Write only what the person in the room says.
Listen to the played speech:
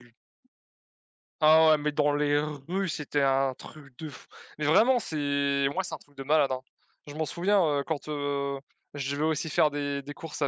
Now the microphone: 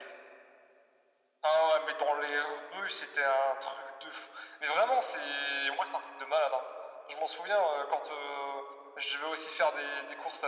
none

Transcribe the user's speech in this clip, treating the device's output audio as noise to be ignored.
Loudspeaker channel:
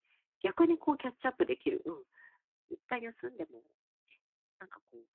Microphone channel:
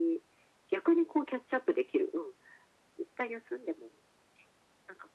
none

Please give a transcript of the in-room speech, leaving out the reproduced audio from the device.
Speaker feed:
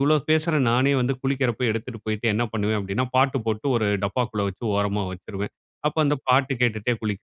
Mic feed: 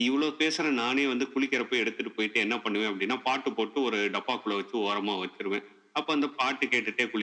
none

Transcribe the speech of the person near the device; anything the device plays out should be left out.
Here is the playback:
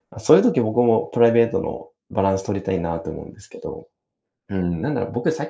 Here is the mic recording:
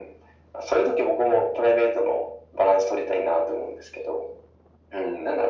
none

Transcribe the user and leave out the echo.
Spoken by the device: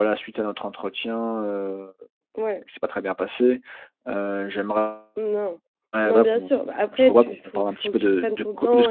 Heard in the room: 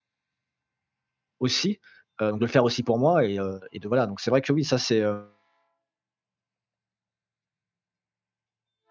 aussi, heu, de le faire aussi pour moi et heu, de voilà. Donc, c'est vrai que oui, ça, c'est, hem

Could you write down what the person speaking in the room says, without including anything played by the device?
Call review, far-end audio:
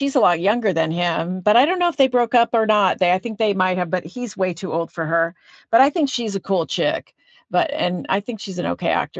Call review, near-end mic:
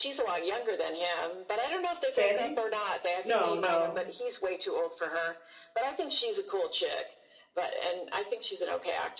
Fanning? No, no.

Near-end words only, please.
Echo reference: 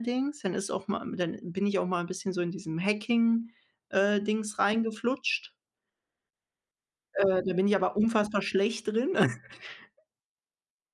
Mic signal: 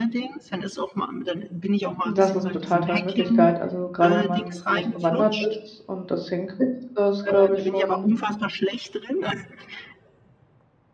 Das ist 'ne total tolle Möglichkeit. Also, grade wenn man in dem Bereich bewandert ist und das hinkriegt, ist das, glaube ich, schon

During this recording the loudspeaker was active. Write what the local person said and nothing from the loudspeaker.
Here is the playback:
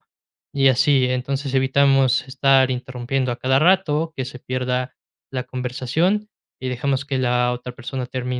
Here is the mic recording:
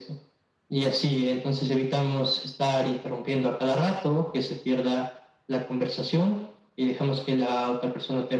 none

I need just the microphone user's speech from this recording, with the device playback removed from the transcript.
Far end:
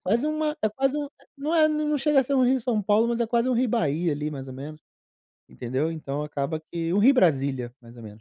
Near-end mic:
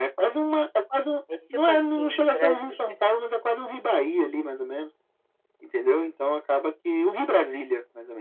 É tipo assim, Brasília

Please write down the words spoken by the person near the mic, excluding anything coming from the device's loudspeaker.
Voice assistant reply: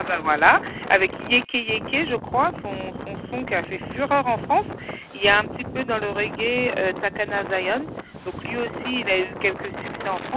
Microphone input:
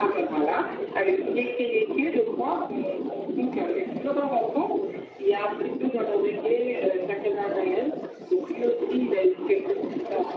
none

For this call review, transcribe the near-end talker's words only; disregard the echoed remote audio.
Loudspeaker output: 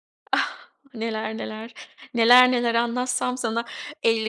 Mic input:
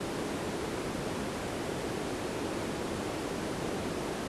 none

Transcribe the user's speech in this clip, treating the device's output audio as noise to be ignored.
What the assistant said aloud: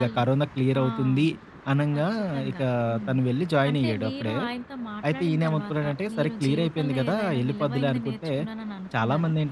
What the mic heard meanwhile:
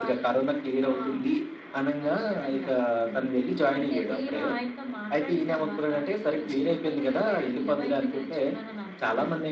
none

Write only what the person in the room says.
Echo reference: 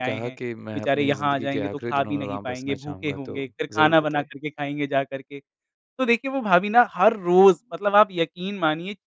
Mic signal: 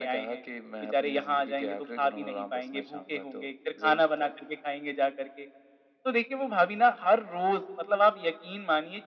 none

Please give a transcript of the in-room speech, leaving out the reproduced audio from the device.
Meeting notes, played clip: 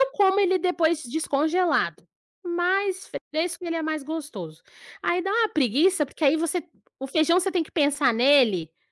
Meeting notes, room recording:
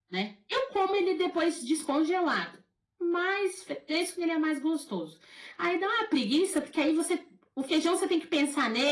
none

